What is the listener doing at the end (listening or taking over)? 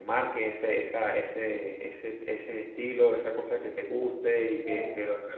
listening